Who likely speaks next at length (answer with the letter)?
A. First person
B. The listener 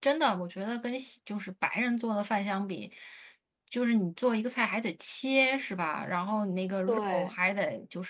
A